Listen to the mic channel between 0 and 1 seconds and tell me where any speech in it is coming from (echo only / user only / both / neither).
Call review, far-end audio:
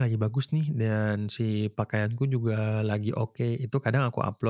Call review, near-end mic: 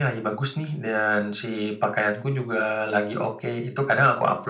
echo only